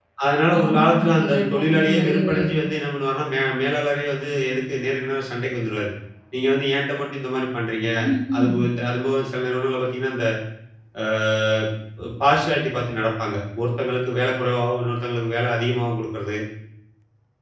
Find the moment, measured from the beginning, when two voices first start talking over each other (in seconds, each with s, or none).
0.6 s